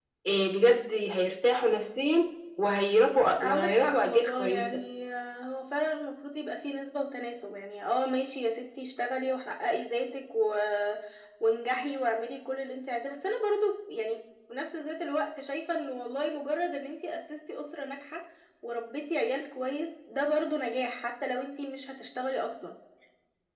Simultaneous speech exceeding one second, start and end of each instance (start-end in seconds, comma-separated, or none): 3.4-4.8